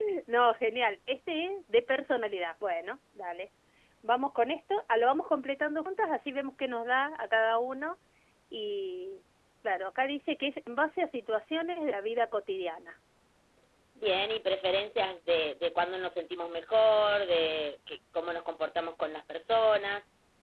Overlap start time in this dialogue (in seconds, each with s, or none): none